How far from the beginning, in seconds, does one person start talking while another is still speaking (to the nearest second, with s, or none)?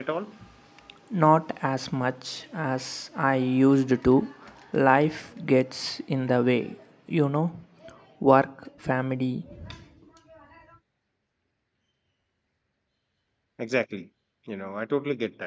none